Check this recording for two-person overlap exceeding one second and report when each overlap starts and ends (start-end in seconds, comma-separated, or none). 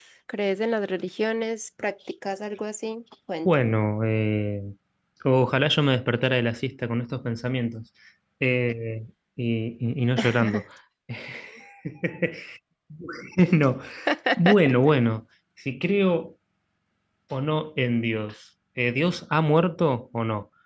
none